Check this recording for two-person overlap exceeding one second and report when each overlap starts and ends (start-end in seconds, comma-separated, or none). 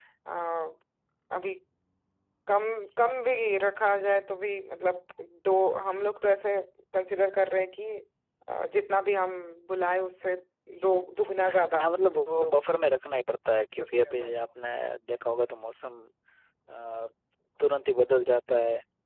none